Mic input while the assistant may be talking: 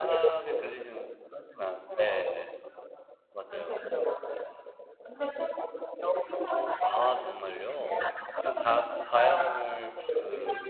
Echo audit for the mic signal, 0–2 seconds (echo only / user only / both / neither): both